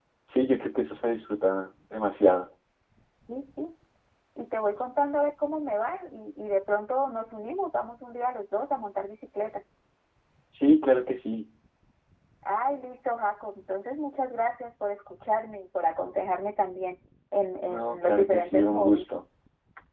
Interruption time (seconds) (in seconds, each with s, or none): 17.7 s